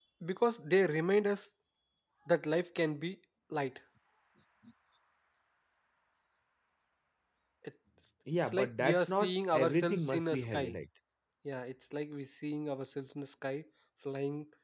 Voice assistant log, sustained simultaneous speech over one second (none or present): present